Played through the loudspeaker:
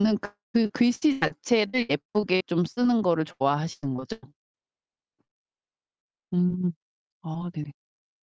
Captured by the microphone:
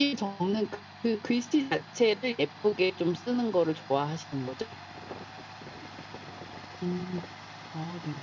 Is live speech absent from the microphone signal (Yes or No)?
Yes